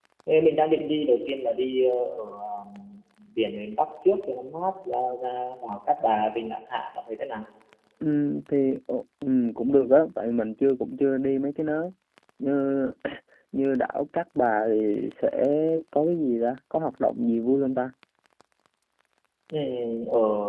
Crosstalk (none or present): none